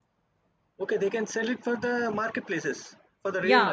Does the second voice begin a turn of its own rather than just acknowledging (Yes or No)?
Yes